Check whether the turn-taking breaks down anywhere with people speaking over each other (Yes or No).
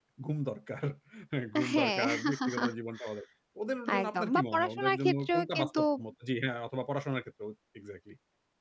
Yes